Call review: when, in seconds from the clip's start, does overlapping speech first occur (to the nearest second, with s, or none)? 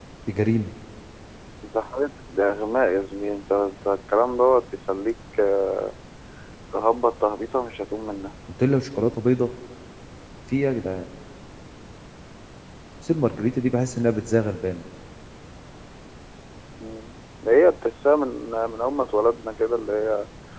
none